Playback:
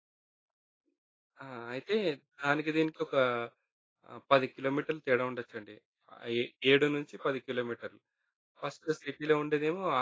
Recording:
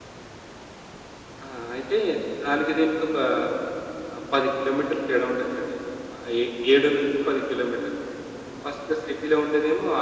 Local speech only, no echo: none

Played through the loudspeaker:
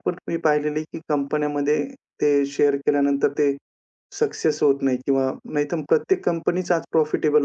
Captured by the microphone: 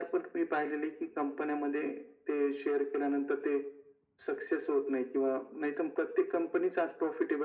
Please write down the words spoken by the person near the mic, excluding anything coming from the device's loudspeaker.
none

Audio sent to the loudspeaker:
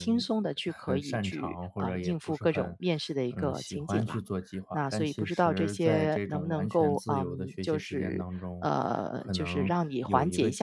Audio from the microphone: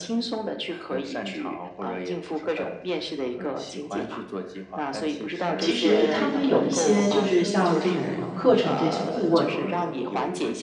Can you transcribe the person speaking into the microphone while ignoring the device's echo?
其实他们有一些就是像这种课程这些顾问。

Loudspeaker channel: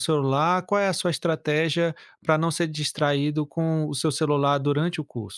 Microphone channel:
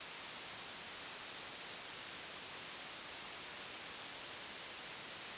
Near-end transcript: none

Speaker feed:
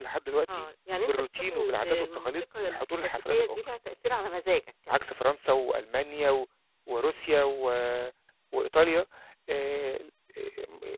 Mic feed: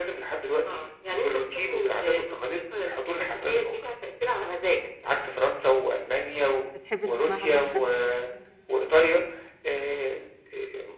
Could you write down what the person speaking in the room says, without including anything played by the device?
بتحب تسمعها لوحدك؟

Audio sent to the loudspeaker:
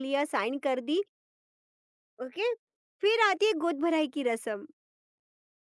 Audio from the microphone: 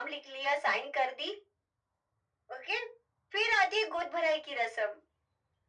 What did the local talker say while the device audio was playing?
none

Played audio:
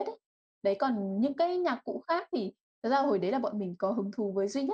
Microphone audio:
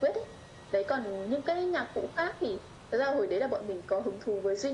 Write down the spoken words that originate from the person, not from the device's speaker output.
none

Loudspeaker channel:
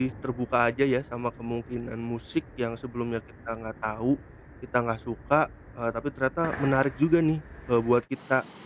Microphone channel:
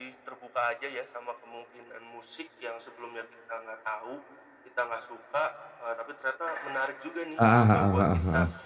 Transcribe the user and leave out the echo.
Heeh heeh heeh heeh.

